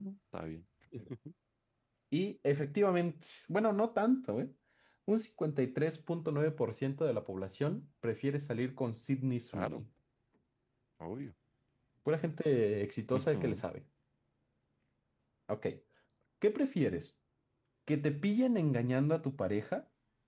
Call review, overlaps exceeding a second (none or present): none